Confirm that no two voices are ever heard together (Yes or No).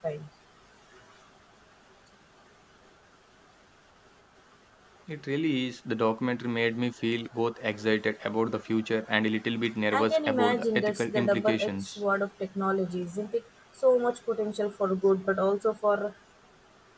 No